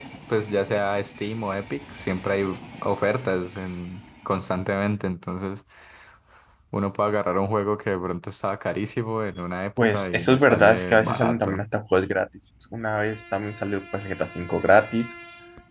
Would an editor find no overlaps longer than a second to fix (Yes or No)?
No